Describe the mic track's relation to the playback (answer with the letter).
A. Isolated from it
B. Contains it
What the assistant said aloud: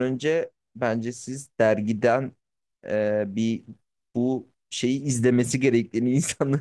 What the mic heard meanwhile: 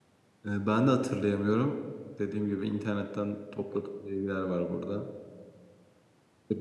A